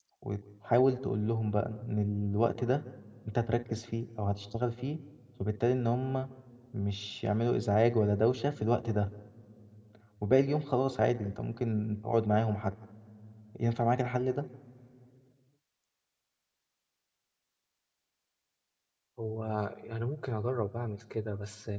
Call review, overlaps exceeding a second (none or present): none